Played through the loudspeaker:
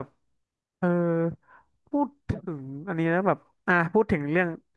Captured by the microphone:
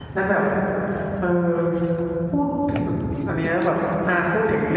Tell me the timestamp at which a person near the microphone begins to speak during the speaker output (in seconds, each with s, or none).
none